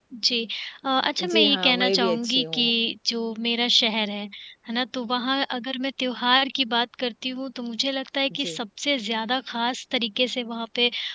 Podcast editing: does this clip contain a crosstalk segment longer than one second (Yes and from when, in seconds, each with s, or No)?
Yes, from 1.3 s